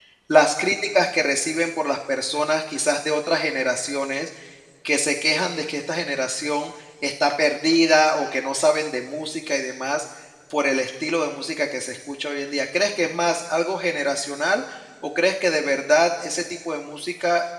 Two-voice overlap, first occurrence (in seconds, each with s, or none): none